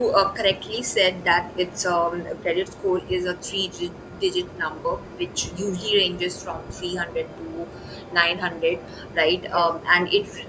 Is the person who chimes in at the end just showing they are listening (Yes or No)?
Yes